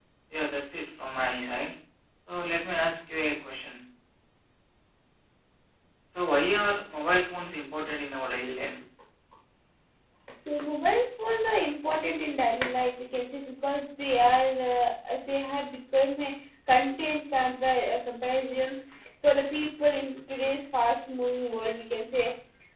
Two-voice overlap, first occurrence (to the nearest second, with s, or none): none